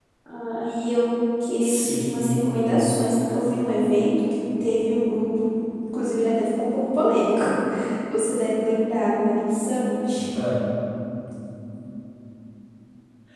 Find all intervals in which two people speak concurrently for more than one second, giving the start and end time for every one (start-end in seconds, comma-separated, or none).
1.6-2.9